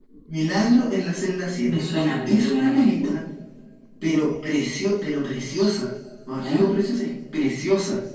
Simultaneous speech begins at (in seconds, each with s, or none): 1.6 s